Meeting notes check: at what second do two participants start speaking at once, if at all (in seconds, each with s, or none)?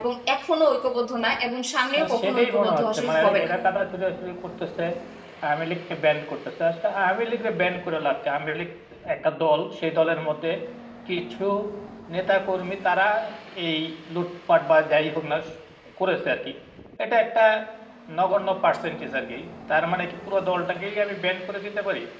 2.0 s